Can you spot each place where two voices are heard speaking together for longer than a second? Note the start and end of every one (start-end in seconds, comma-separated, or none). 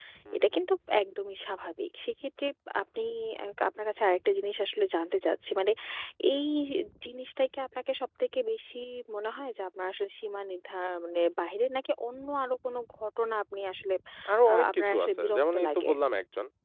14.5-15.9